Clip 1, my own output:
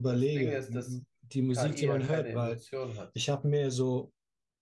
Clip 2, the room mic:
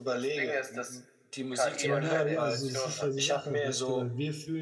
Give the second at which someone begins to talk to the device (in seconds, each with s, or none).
1.8 s